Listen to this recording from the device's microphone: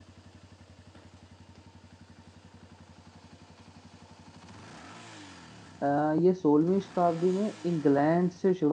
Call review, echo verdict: none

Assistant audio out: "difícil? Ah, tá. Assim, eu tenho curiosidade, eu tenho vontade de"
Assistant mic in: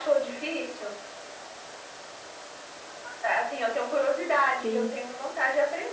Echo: present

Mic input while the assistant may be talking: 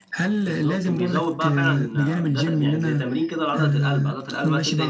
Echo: present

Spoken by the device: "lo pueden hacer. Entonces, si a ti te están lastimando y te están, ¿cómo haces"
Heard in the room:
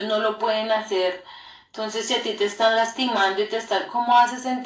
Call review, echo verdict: present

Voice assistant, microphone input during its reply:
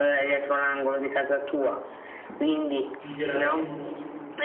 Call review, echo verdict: present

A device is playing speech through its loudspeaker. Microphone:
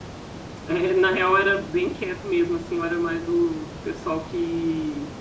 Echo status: none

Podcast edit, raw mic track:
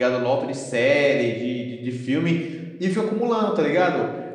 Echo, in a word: none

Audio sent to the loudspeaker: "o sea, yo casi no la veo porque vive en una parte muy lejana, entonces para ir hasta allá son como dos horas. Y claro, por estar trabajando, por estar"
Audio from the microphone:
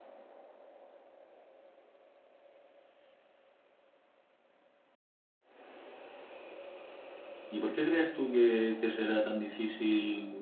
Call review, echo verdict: none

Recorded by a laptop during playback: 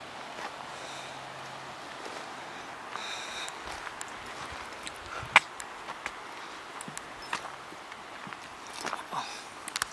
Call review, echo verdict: none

